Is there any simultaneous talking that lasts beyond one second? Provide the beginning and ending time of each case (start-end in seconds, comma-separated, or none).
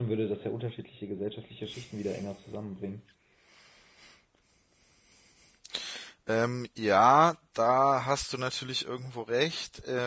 none